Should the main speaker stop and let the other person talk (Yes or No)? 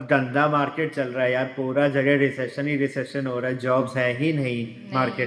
No